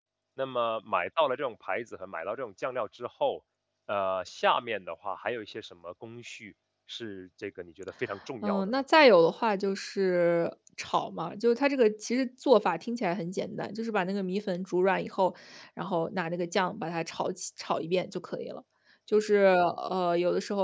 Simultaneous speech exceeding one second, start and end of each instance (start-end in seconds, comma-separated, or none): none